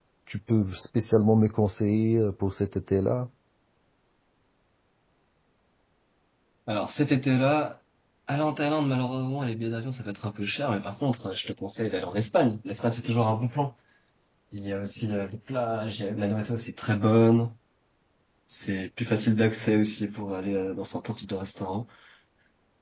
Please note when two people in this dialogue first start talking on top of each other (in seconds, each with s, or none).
none